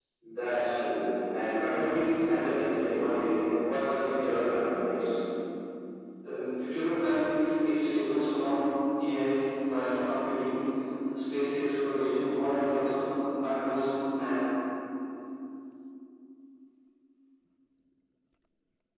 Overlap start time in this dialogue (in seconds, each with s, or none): none